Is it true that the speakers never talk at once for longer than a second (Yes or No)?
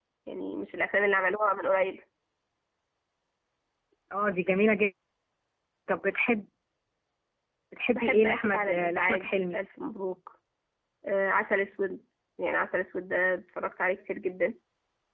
No